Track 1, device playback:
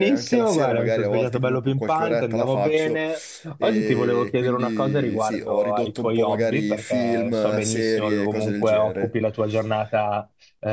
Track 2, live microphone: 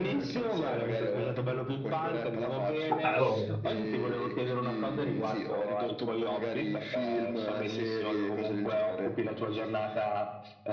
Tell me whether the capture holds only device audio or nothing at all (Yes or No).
No